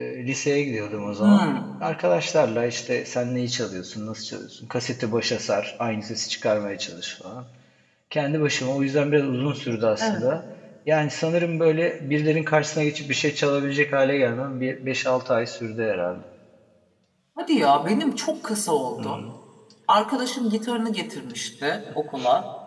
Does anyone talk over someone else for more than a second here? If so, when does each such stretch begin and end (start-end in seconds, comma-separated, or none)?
none